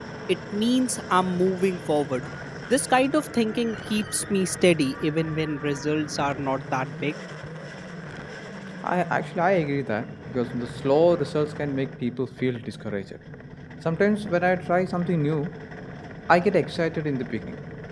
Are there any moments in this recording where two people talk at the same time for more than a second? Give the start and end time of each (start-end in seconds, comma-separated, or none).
none